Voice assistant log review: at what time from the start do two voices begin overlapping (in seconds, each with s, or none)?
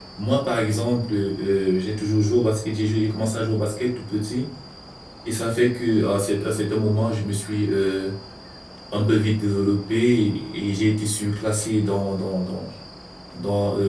none